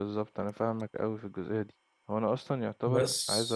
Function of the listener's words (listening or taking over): listening